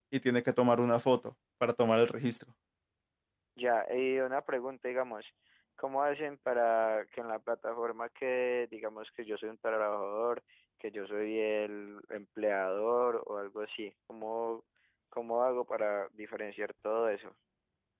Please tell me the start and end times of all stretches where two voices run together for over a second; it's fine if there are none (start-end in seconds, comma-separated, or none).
none